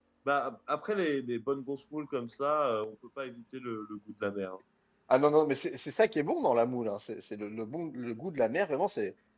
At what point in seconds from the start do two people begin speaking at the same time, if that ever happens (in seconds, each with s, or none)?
none